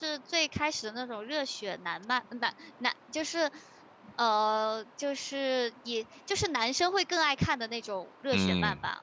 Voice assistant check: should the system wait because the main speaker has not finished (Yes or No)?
No